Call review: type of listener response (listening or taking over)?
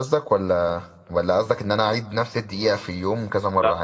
taking over